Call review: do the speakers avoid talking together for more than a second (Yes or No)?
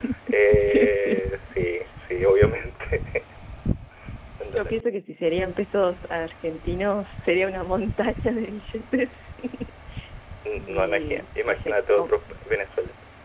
No